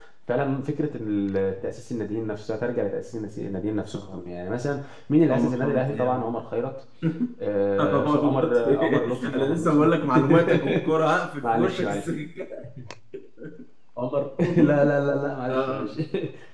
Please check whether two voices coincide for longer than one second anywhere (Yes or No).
Yes